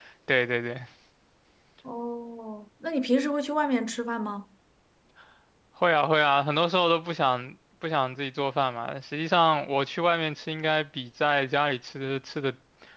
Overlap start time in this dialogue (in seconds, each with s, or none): none